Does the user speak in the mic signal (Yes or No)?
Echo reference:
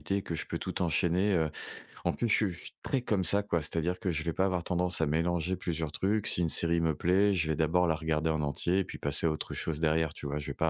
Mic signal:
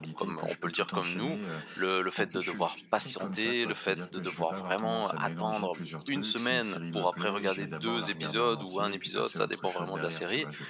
Yes